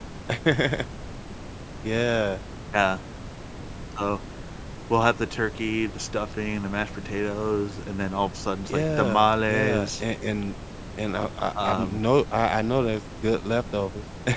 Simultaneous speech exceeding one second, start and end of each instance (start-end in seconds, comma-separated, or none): 8.7-10.0